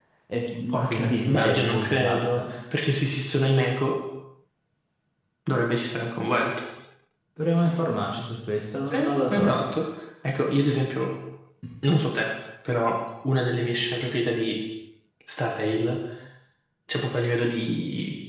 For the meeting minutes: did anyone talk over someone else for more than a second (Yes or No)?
Yes